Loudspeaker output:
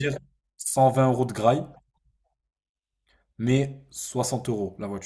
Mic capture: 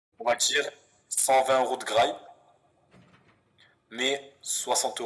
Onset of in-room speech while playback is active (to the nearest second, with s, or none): none